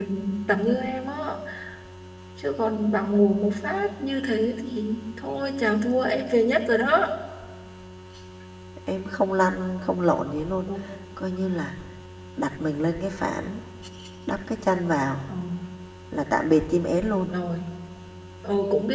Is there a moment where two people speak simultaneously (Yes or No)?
No